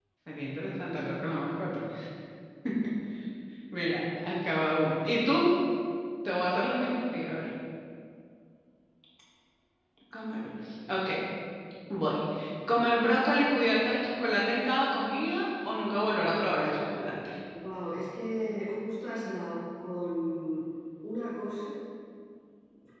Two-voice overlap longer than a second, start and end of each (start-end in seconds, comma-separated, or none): none